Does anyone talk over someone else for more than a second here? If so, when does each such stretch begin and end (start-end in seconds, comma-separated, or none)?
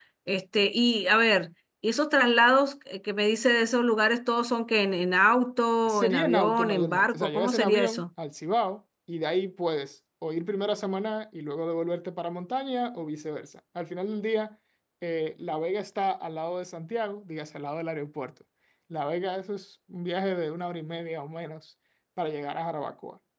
5.9-8.0